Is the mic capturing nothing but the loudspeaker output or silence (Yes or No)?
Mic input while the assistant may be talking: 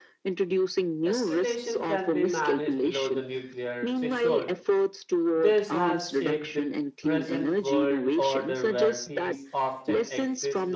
No